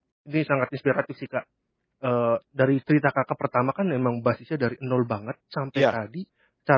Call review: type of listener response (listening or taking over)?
listening